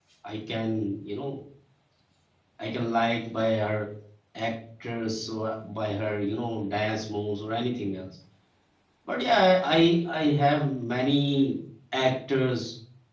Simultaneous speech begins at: none

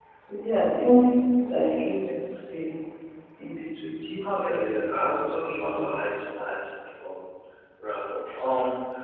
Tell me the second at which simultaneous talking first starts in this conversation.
4 s

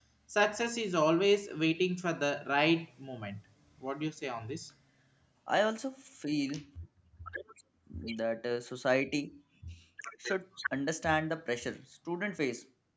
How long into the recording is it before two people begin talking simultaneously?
none

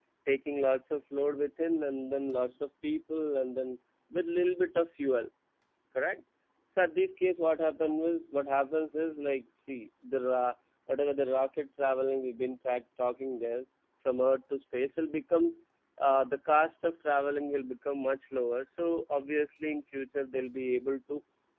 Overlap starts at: none

